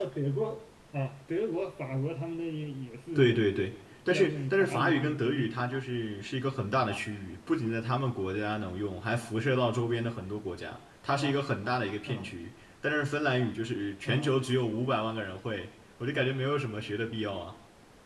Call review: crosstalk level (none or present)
present